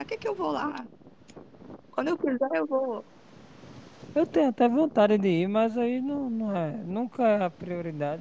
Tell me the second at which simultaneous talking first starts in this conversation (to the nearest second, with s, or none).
none